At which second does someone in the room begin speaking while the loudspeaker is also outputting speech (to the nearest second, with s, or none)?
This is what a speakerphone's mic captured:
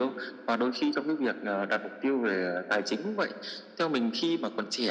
none